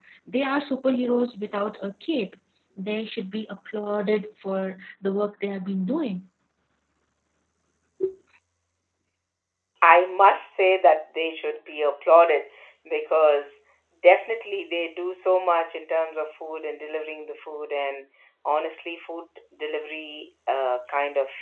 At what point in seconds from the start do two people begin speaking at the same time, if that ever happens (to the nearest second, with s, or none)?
none